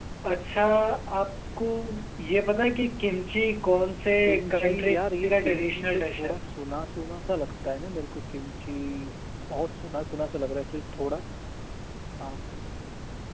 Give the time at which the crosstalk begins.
5 s

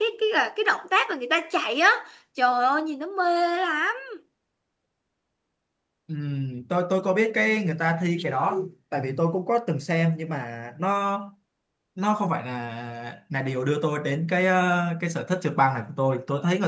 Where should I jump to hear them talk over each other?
none

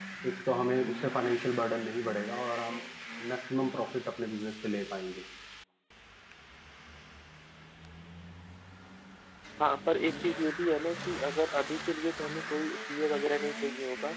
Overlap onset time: none

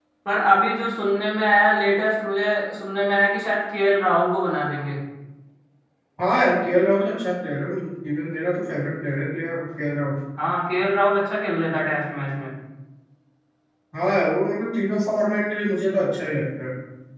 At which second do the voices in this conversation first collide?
none

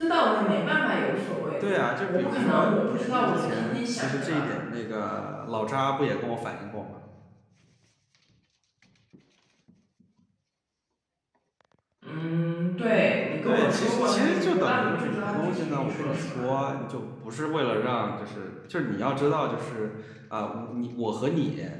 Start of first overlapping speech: 2 s

